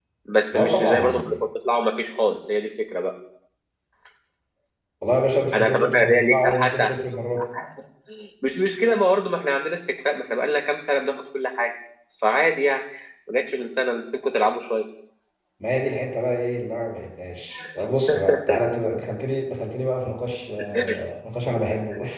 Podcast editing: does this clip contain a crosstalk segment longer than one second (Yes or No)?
Yes